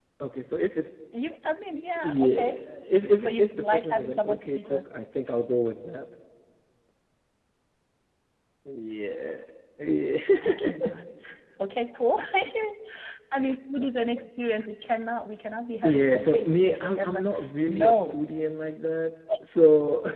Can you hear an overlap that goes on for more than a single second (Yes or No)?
Yes